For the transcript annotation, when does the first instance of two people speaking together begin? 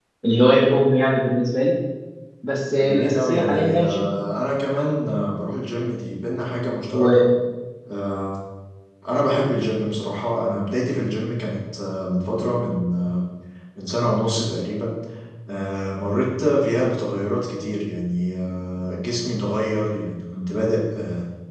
2.8 s

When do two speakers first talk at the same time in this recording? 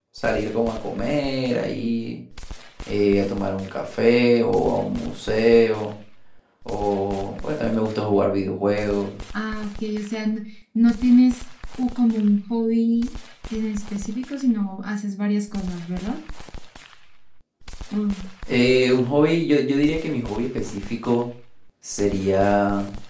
none

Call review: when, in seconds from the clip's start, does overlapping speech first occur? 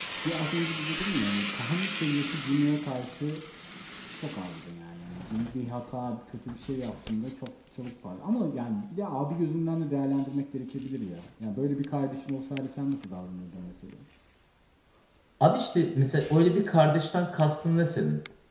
none

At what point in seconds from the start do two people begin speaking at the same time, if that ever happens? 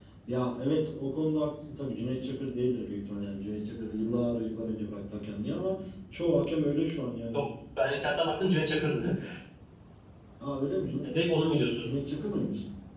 none

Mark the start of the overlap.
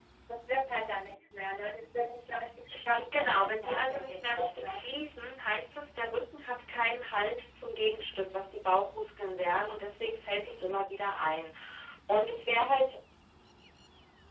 2.9 s

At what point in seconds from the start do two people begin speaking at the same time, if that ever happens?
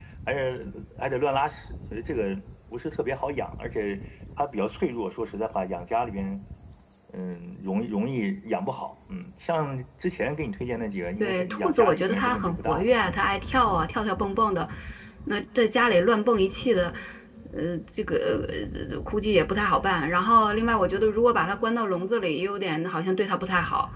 11.2 s

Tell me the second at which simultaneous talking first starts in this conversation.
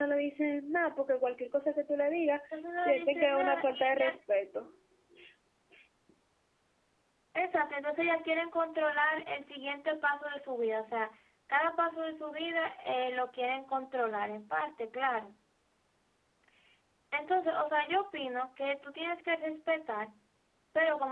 2.8 s

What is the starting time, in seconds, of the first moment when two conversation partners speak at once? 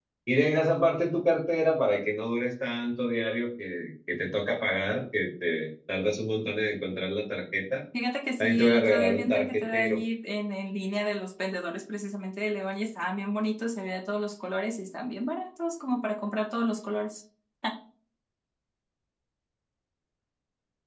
8.4 s

